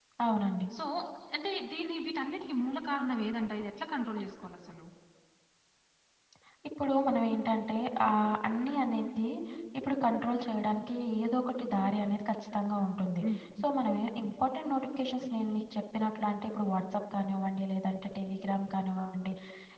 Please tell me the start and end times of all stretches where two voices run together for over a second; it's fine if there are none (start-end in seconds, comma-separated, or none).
none